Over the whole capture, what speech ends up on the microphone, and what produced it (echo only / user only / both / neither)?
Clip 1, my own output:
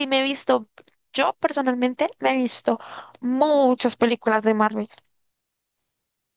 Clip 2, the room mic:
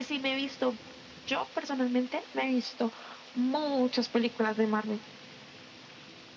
echo only